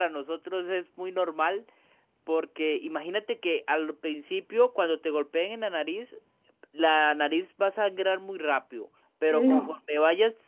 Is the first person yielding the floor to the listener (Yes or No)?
No